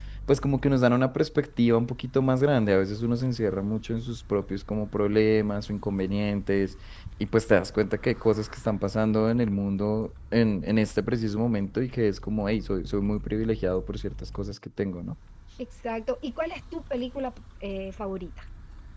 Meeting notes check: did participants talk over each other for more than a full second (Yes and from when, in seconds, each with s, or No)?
No